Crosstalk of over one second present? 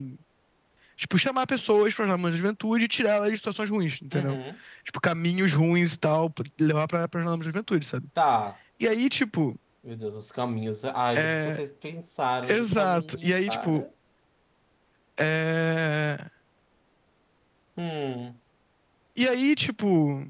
Yes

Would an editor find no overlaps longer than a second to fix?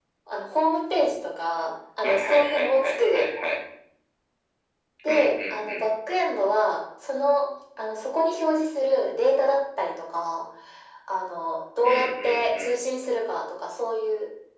No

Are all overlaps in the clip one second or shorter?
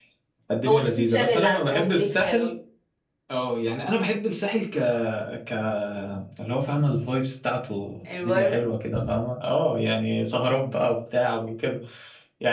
No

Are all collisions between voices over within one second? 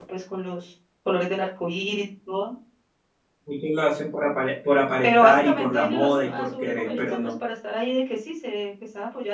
No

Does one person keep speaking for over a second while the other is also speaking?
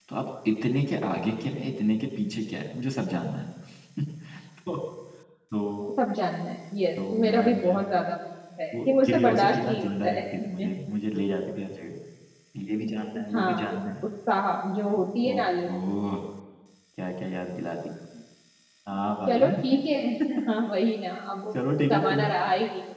Yes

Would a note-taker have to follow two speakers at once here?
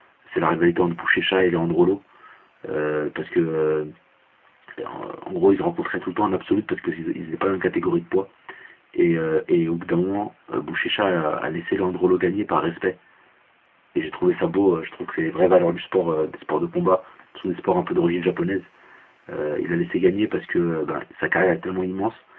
No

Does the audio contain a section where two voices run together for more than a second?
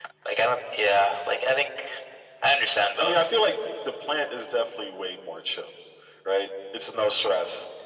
No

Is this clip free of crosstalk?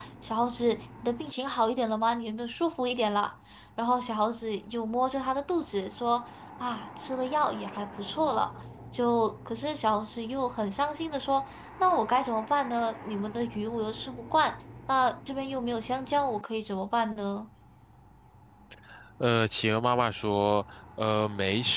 Yes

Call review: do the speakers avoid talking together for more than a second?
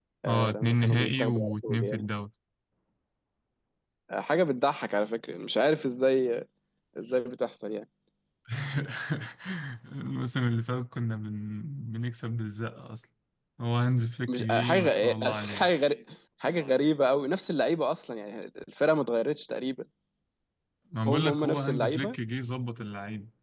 No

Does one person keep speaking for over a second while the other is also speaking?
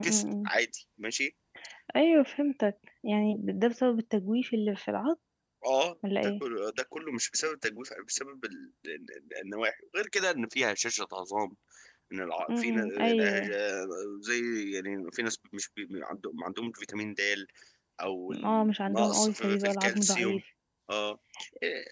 Yes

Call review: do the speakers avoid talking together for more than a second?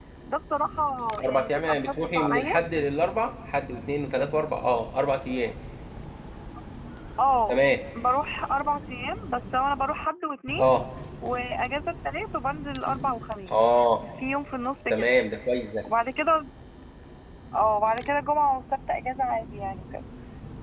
No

